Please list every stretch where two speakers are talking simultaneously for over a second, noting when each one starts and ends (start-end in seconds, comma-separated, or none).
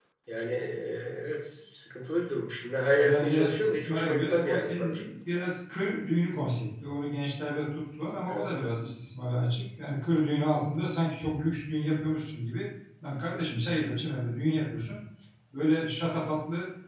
3.0-5.0